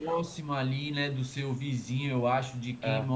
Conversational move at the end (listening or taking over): listening